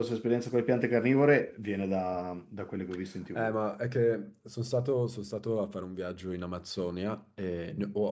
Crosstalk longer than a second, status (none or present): none